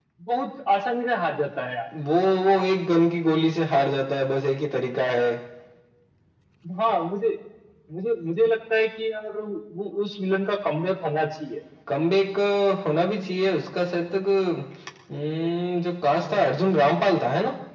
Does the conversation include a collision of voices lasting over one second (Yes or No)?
No